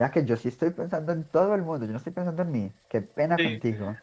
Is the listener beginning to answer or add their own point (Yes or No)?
Yes